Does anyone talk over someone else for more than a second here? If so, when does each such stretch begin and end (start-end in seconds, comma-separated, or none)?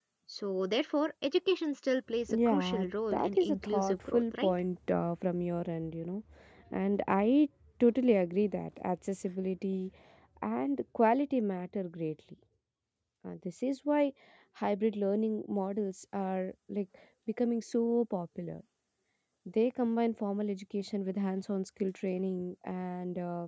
2.3-4.5